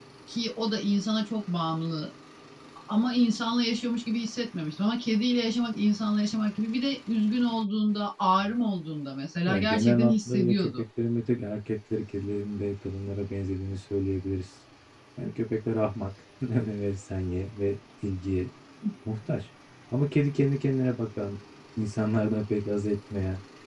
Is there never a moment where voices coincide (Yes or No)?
No